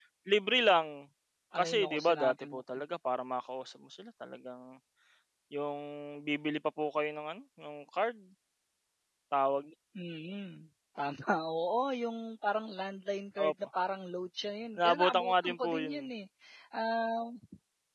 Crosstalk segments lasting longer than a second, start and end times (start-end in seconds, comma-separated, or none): 1.6-2.8, 14.8-16.0